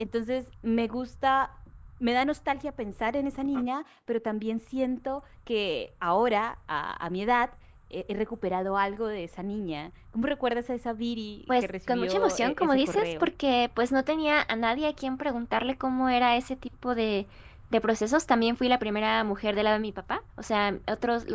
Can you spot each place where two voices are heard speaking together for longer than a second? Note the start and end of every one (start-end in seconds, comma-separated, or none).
11.5-13.3